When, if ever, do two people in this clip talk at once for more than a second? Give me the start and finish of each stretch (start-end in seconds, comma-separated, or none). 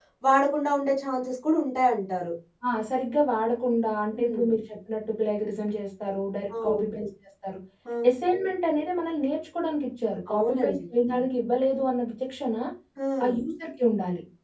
none